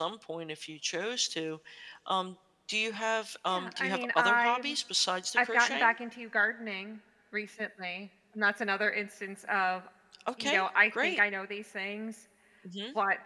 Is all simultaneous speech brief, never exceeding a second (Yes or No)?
No